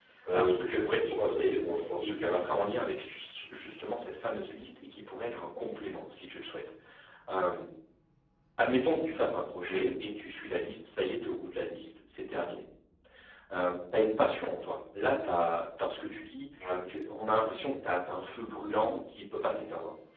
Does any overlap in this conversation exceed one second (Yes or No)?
Yes